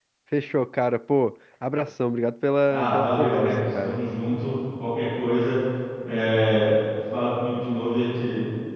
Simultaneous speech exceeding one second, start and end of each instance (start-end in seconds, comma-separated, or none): 2.7-4.0